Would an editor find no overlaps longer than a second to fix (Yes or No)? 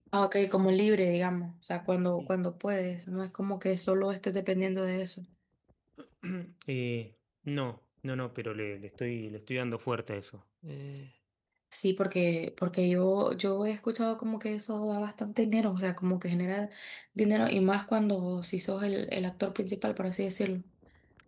Yes